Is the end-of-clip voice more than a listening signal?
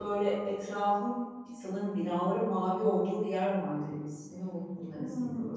Yes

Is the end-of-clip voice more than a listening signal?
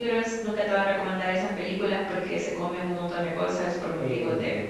Yes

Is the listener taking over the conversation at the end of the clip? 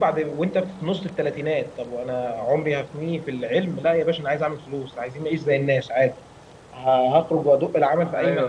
No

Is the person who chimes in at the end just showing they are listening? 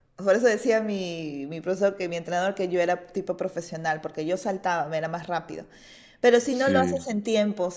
Yes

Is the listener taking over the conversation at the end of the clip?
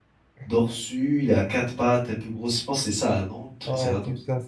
Yes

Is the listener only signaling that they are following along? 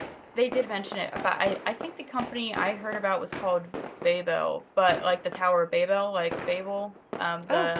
No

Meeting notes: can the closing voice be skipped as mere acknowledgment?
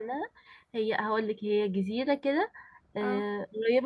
Yes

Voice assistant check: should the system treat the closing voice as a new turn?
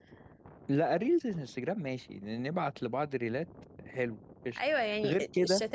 Yes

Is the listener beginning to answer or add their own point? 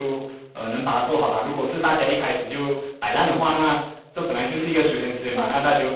No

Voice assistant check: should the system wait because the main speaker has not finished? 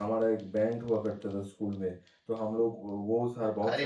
Yes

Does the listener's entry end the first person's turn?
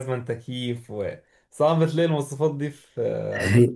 Yes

